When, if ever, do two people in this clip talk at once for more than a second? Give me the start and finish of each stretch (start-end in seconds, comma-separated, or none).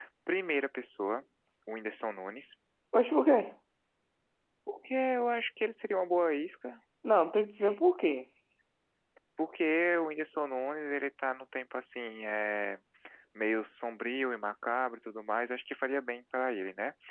none